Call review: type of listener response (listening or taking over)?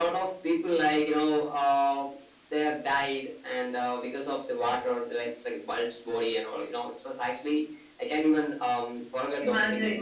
listening